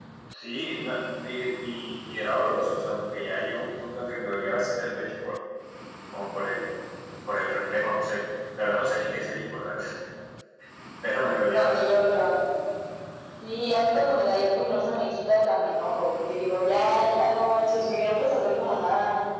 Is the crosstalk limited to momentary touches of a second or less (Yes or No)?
Yes